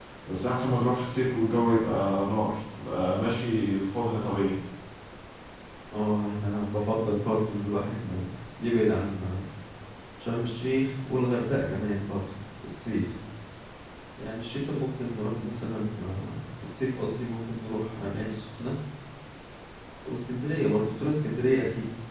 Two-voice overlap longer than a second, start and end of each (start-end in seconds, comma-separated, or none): none